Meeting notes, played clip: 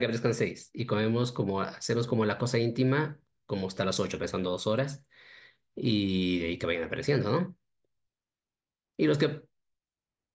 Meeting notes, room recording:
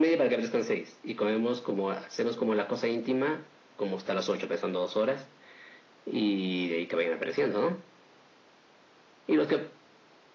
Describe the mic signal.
echo only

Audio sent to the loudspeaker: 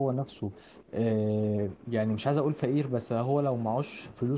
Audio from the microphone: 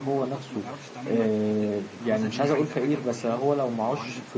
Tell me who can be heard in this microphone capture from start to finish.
both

